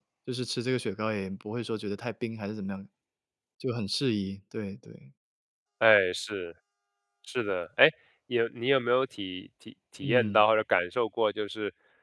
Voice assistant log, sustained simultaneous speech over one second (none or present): none